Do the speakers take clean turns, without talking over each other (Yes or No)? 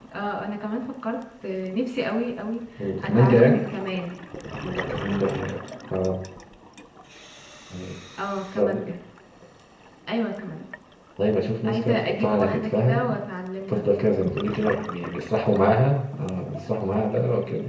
No